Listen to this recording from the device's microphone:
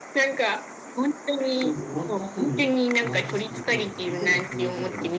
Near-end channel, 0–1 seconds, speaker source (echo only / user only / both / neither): echo only